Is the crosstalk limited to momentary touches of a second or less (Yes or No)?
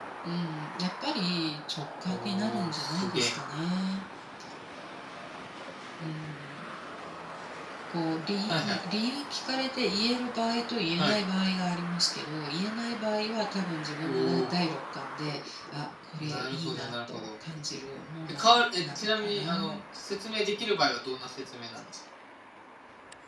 No